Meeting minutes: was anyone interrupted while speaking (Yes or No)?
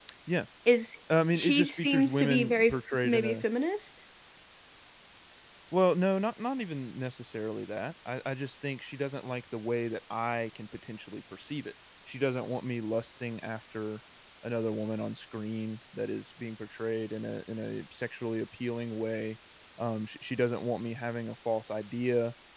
Yes